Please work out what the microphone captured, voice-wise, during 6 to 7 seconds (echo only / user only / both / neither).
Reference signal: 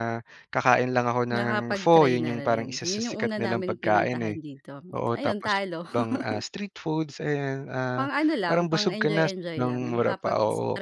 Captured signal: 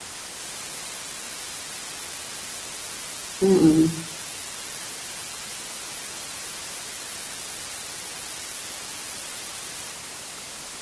neither